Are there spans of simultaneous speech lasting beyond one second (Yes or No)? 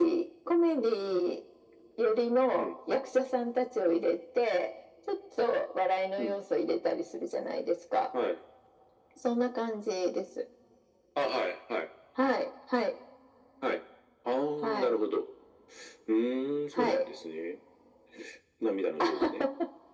No